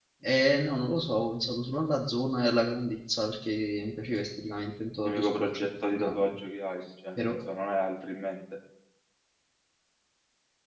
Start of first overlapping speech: 5.0 s

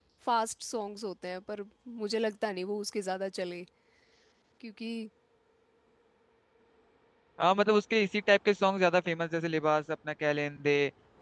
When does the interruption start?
none

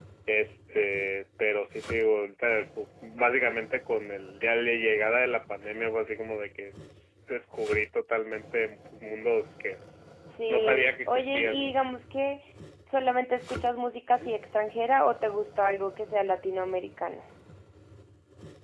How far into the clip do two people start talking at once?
10.3 s

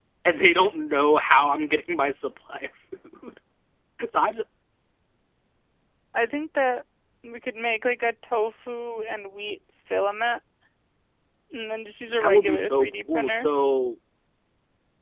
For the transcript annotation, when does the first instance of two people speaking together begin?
12.2 s

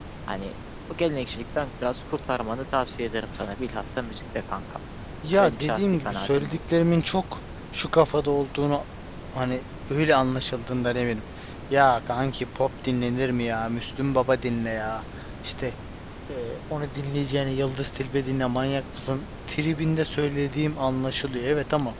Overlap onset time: 5.3 s

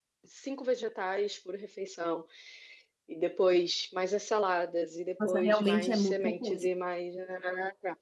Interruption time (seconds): 5.2 s

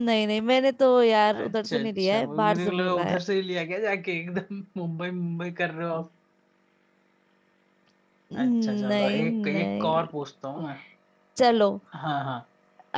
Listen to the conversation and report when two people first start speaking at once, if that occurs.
1.3 s

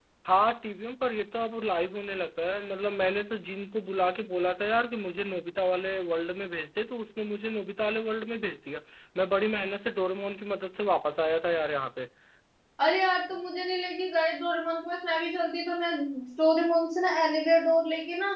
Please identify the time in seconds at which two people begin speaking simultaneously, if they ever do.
none

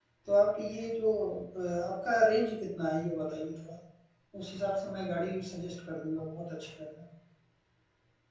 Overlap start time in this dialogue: none

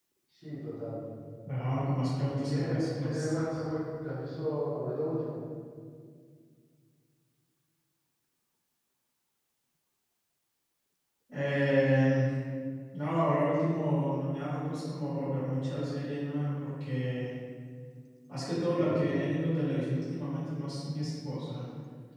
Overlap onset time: 2.3 s

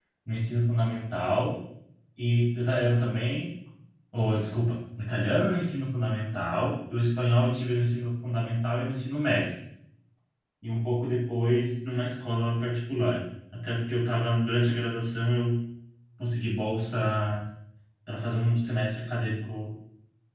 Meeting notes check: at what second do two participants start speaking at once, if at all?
none

